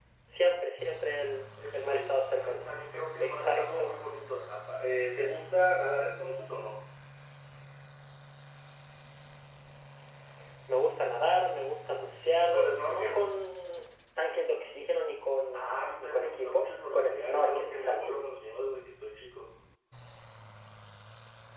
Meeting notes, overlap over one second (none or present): present